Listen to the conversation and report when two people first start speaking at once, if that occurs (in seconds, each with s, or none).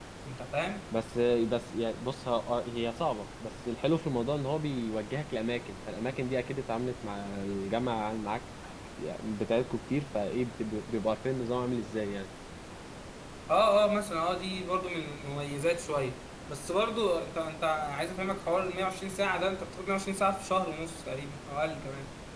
none